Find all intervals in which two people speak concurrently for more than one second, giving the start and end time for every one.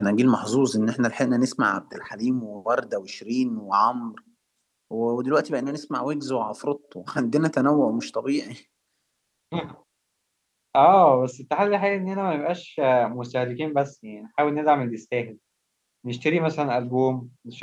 none

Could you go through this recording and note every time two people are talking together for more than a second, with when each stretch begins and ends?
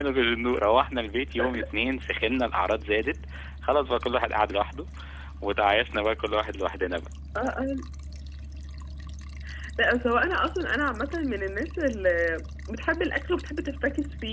none

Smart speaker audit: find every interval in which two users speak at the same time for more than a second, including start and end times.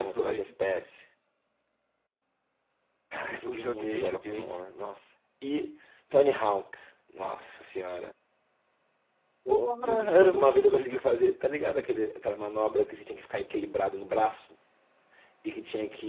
3.3-4.5, 9.5-11.0

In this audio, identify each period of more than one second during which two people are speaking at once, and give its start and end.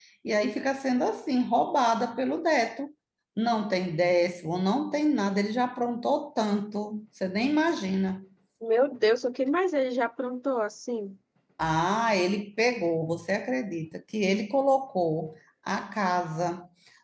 none

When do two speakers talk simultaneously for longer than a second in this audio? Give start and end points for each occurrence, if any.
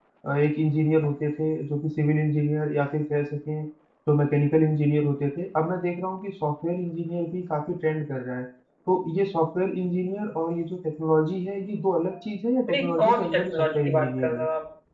12.7-14.4

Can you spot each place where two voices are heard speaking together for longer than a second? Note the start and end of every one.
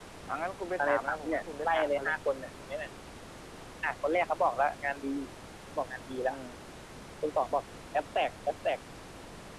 0.8-2.1

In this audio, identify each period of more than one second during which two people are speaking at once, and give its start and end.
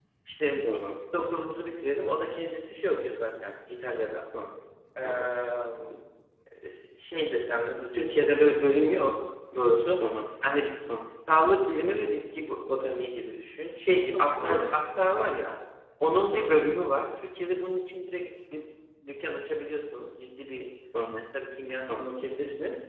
none

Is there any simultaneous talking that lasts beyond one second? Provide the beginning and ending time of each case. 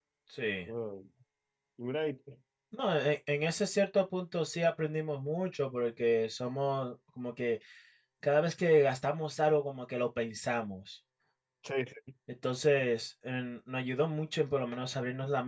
none

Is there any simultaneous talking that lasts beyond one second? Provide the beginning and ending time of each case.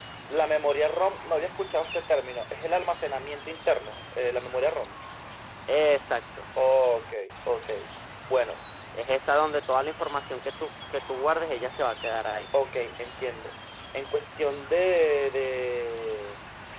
none

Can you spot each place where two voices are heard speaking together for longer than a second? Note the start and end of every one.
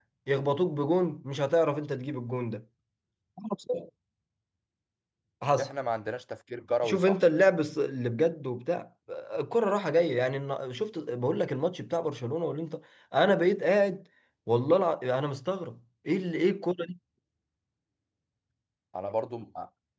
none

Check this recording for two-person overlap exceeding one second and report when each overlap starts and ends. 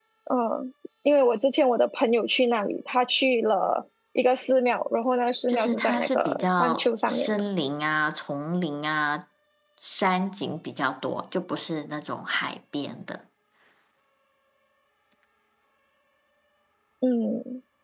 5.5-7.4

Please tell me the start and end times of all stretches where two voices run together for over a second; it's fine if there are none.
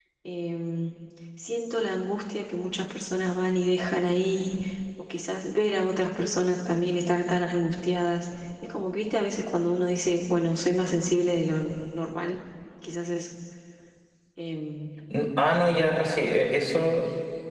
none

